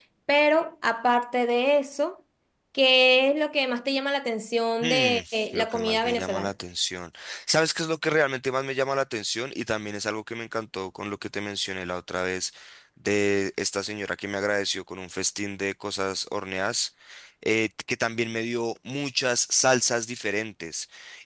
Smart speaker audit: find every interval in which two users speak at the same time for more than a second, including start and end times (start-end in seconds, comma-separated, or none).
4.8-6.5